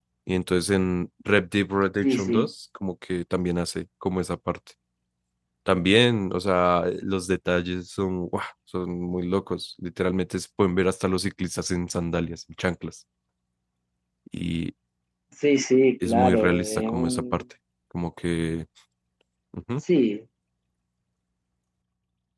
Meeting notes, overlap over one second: present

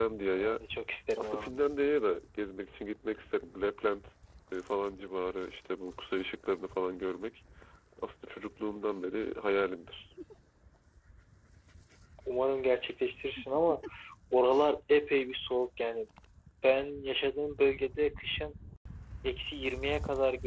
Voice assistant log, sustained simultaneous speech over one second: none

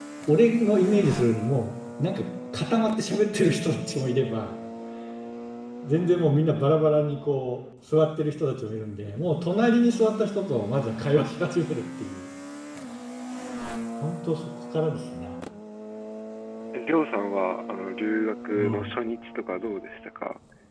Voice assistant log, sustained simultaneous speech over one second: none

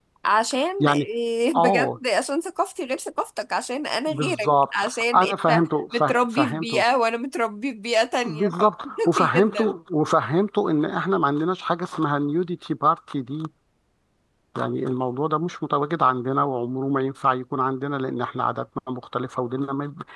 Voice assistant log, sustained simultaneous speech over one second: present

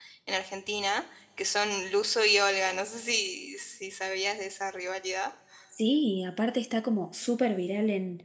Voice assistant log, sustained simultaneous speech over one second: none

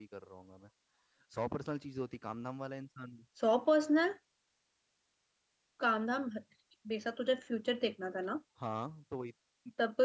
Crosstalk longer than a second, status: none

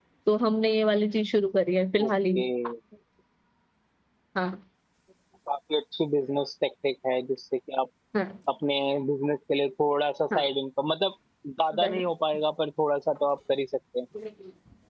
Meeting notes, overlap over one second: none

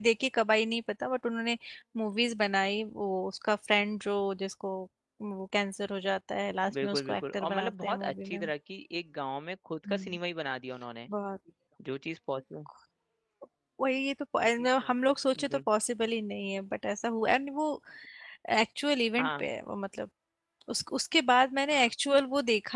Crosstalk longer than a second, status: present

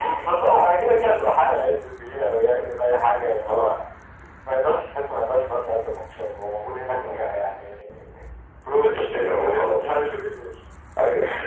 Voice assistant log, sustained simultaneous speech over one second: present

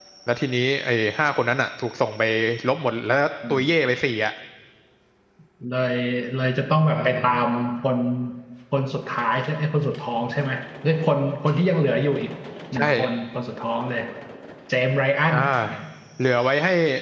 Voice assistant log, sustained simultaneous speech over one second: none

